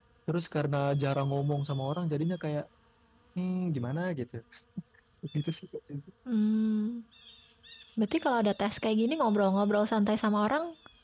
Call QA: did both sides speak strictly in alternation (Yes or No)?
Yes